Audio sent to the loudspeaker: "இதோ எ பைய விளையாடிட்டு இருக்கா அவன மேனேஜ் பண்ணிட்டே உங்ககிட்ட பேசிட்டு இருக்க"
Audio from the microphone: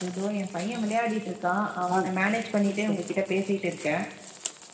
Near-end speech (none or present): present